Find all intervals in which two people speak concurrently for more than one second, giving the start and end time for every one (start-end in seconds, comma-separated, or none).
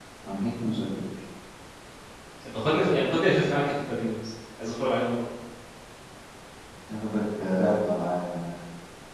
none